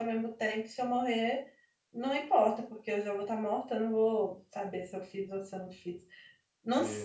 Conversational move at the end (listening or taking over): listening